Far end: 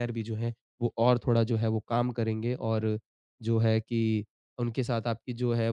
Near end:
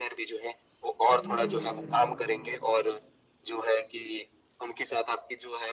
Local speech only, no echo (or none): इतने अमूल्य सलाहों के लिए।